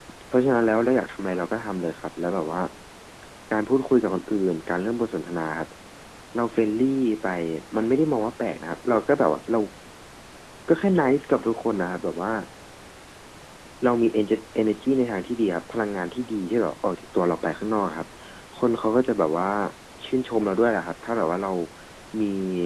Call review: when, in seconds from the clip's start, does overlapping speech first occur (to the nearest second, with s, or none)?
none